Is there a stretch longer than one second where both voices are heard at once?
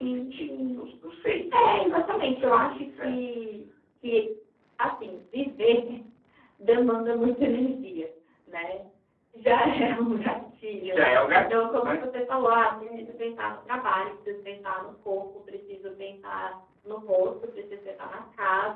Yes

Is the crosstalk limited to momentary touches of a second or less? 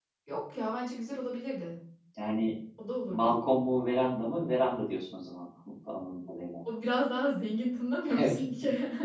Yes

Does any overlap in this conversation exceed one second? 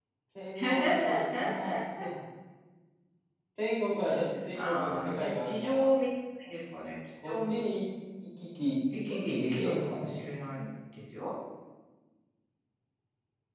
Yes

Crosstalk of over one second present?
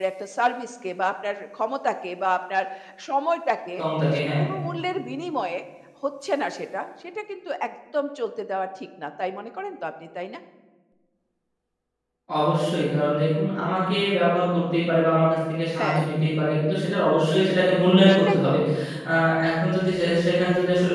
No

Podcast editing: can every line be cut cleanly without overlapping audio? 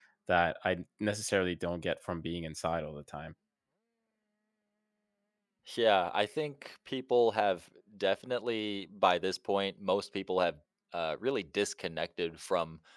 Yes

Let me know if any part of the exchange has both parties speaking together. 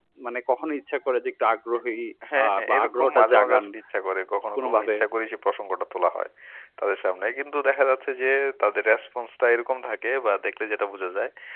Yes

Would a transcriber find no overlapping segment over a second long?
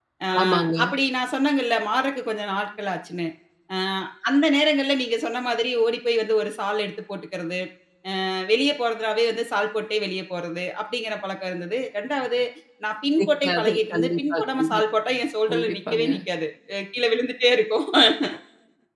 No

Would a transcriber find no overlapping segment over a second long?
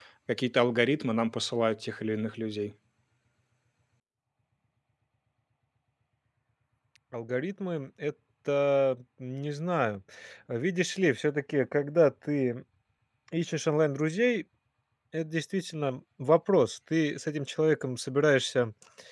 Yes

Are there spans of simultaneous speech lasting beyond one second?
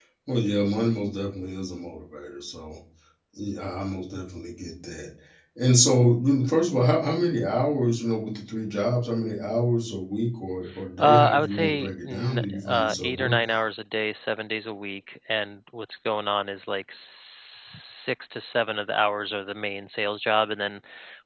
Yes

